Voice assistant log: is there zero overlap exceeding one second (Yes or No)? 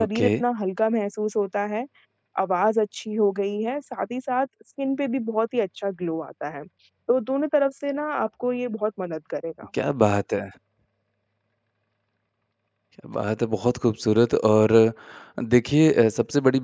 Yes